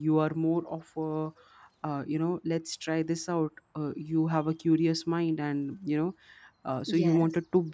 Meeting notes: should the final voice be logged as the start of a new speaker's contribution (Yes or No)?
No